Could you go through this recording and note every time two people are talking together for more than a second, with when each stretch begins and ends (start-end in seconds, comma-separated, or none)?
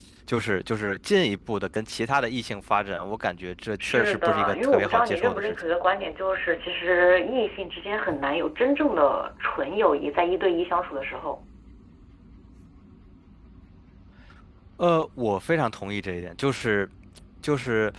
3.8-5.5